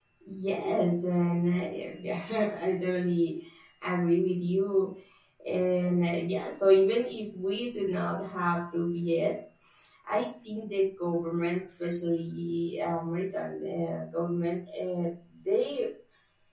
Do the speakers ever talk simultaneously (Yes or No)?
No